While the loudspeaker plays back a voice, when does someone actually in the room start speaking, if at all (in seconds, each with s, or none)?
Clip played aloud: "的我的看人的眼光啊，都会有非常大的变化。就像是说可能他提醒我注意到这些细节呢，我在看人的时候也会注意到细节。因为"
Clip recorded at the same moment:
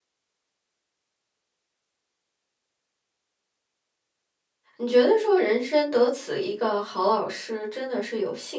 4.8 s